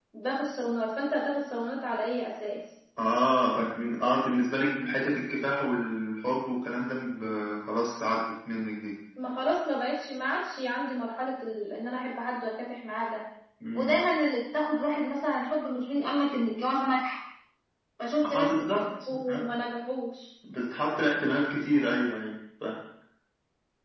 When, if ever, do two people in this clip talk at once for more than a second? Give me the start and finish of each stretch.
18.2-19.5

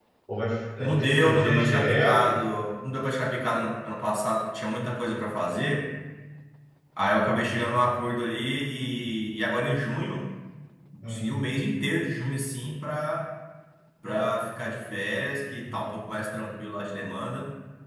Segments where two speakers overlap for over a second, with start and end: 0.8-2.4

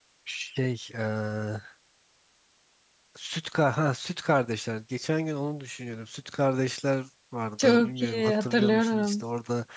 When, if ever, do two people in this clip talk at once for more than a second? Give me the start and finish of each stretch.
7.6-9.2

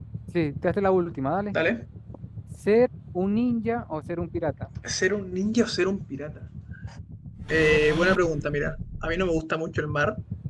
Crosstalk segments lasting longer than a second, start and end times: none

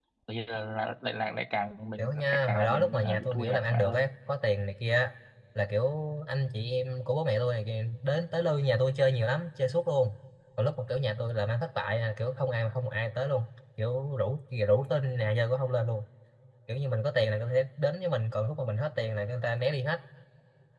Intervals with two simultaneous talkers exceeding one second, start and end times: 2.0-4.1

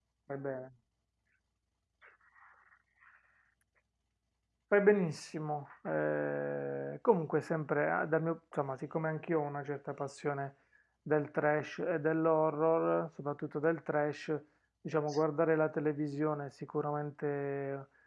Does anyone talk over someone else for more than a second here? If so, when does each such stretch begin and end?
none

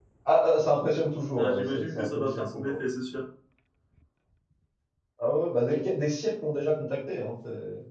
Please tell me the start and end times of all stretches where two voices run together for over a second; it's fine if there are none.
1.4-2.7

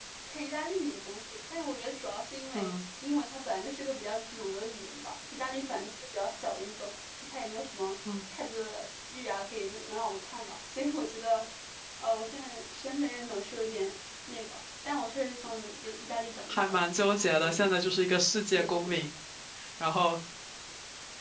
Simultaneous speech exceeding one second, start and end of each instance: 16.5-17.7

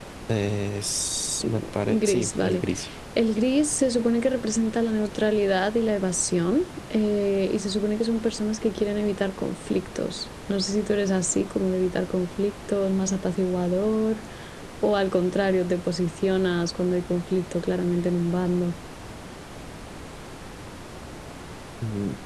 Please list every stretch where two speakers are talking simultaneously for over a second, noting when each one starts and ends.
1.4-2.6

